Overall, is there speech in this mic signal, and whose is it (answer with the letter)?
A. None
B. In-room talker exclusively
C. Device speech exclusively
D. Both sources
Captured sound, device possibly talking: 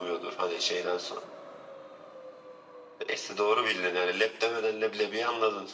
C